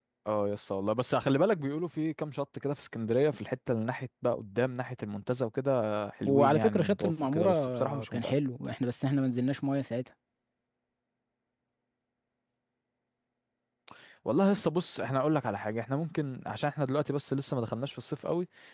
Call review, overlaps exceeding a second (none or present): present